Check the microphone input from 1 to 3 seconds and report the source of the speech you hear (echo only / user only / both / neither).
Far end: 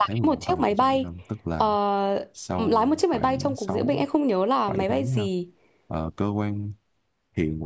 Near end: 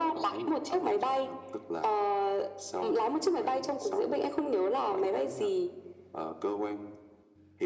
echo only